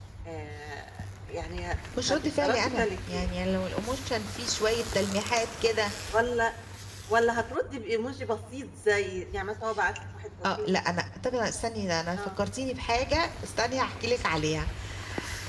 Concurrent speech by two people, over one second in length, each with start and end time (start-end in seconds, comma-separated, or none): 2.0-3.3